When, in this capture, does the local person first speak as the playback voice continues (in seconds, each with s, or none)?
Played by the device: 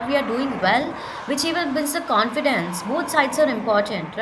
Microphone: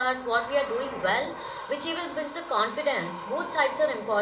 none